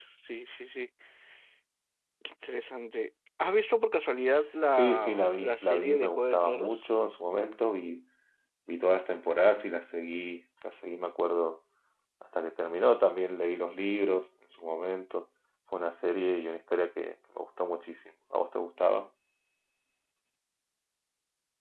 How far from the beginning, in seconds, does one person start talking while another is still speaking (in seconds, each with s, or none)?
4.7 s